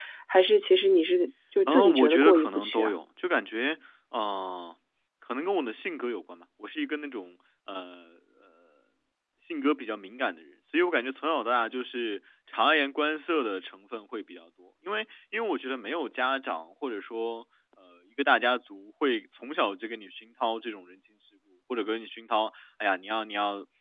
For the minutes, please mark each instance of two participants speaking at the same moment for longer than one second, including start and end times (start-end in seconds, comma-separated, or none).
1.7-2.9